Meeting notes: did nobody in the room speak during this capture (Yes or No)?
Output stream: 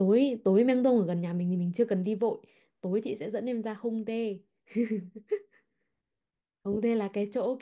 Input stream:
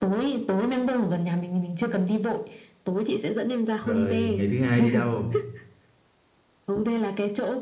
No